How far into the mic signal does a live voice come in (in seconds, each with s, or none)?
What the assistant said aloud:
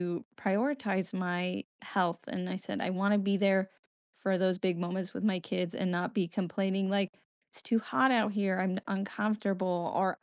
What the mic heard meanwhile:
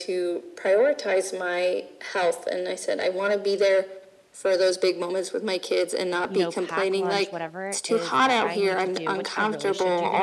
6.3 s